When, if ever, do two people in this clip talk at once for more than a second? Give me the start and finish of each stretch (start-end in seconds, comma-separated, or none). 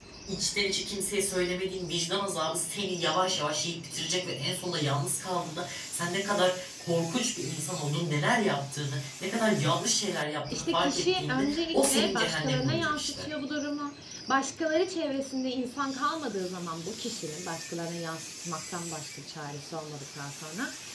10.5-13.3